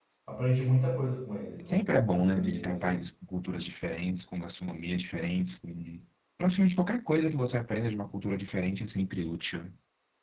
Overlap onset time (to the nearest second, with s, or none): 2 s